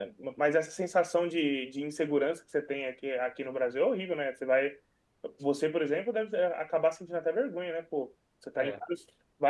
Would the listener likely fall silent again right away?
Yes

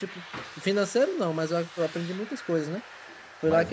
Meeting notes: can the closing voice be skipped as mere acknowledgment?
Yes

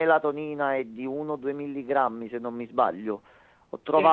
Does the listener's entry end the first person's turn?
No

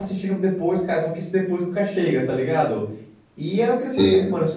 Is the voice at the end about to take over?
No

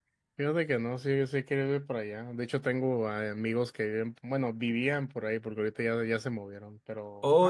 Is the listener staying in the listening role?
No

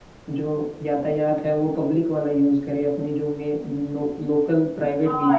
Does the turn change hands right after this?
Yes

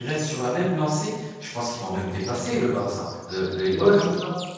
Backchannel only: No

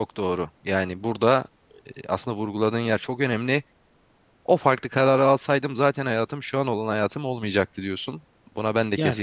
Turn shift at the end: No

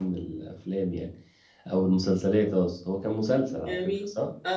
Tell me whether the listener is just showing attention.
No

